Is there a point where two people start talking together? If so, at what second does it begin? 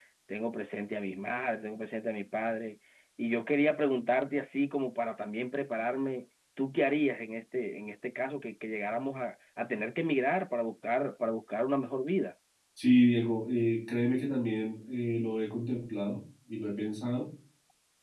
none

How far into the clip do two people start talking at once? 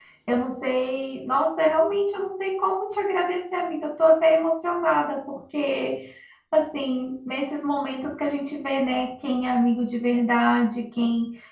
none

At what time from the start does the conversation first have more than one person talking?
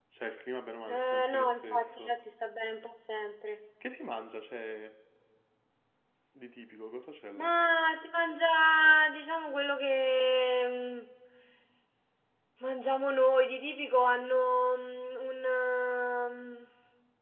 0.9 s

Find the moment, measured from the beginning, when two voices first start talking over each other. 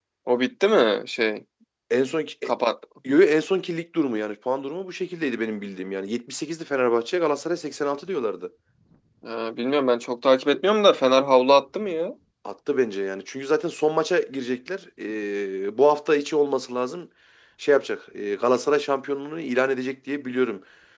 none

